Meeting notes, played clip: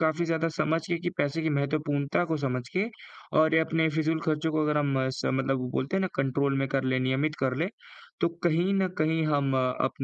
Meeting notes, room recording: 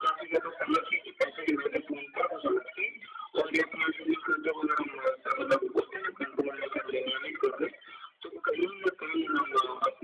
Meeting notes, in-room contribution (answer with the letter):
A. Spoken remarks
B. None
B